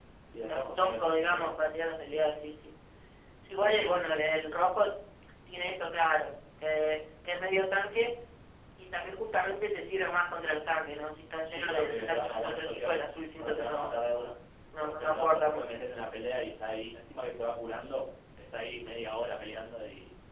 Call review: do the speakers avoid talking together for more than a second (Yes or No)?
No